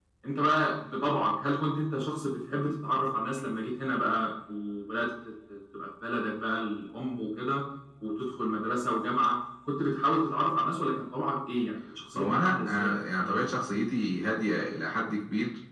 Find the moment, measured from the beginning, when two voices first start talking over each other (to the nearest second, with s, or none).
12 s